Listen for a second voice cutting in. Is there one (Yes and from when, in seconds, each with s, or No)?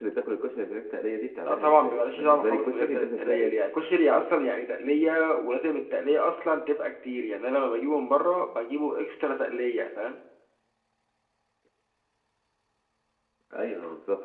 Yes, from 1.4 s